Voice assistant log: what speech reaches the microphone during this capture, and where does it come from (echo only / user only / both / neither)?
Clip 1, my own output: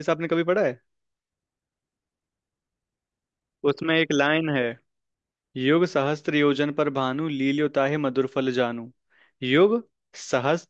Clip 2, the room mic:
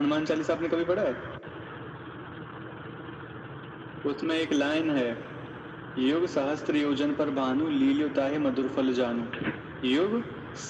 echo only